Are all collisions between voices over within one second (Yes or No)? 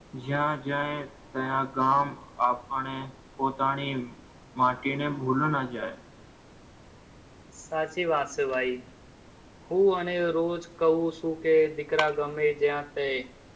Yes